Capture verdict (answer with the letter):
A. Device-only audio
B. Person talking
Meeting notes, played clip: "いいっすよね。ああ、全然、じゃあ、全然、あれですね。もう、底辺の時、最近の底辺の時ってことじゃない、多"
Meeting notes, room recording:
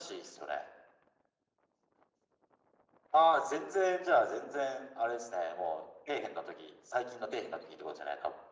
A